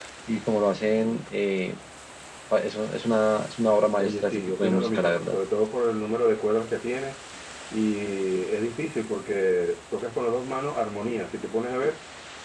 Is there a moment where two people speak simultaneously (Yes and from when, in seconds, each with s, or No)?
Yes, from 4.0 s